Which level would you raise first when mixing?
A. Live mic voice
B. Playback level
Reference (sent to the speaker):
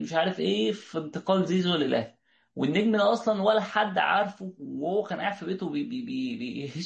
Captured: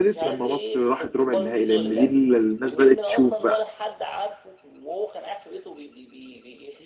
B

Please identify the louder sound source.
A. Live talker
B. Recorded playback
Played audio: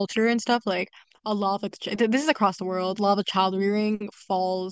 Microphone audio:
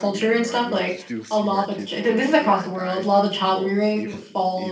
B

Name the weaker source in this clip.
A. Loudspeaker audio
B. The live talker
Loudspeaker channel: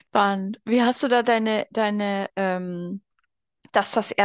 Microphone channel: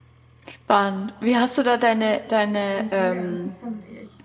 B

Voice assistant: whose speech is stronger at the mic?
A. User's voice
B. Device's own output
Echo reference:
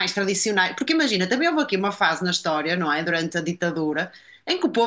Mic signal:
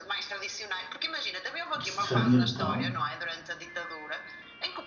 A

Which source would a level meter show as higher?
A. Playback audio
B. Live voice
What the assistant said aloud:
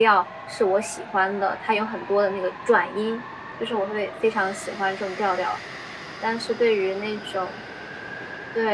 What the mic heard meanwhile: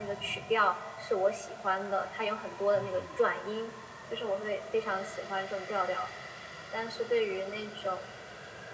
A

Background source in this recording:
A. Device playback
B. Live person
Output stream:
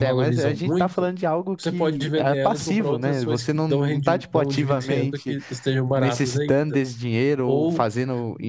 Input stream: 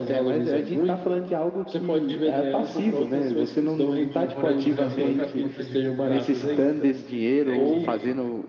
B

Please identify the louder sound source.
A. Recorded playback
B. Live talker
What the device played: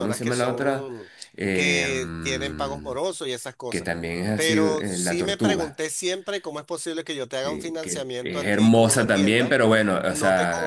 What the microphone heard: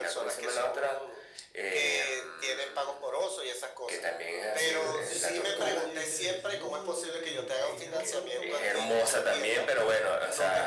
A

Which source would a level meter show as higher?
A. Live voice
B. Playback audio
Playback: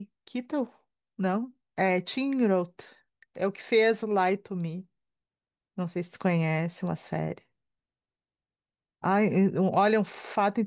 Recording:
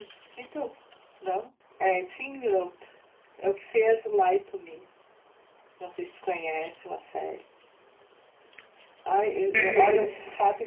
A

